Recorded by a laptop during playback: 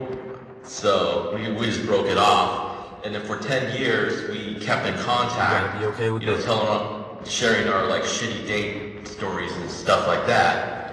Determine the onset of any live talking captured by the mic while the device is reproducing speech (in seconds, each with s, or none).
5.2 s